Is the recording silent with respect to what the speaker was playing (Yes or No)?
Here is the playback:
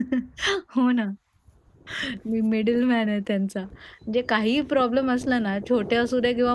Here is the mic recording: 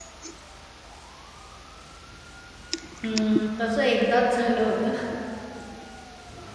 Yes